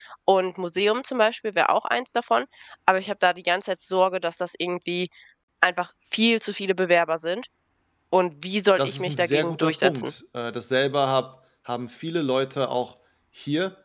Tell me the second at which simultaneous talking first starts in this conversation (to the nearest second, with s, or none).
9 s